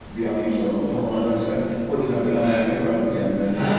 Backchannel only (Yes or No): No